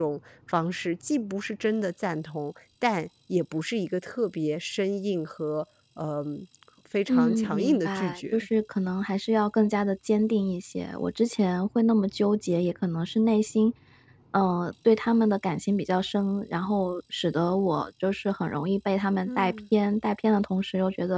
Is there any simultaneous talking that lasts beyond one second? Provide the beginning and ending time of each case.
7.1-8.5

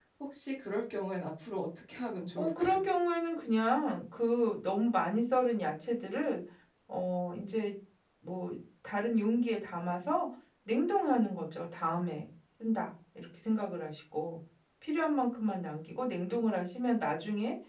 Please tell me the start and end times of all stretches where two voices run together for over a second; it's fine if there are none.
none

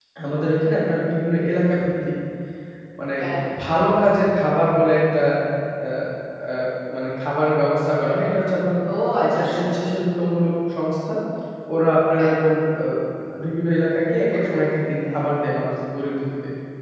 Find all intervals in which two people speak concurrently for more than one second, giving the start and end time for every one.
14.3-15.5

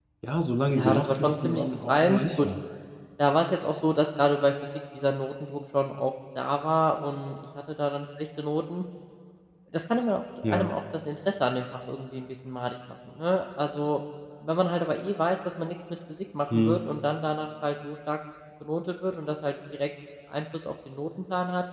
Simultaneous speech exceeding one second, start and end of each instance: 0.8-2.5

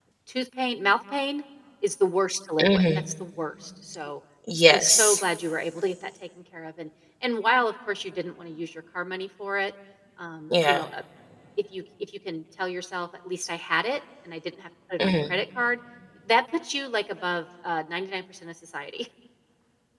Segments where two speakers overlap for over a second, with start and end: none

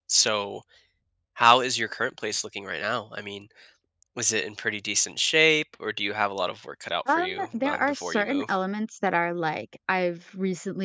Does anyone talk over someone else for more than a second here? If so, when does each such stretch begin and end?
7.1-8.5

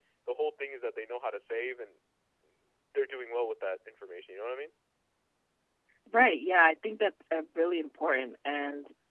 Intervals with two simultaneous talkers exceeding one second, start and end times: none

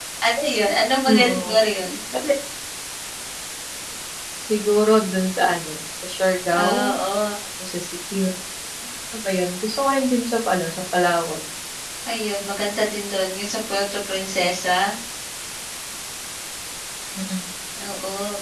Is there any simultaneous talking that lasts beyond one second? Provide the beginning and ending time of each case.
none

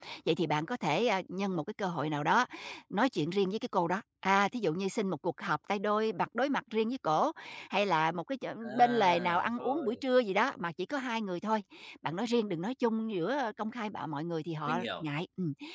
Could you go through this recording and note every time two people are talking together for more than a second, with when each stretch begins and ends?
8.6-10.0

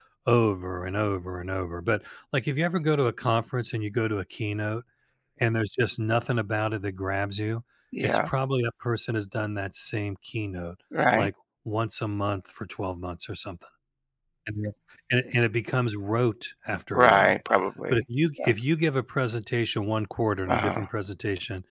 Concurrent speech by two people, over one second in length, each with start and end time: none

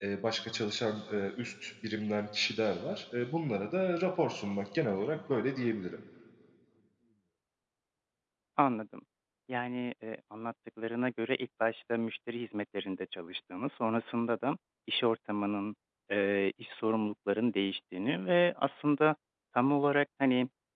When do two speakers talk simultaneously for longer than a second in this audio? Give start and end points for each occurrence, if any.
none

